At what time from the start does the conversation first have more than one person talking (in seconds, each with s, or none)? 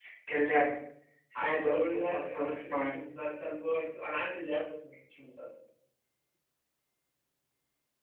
1.4 s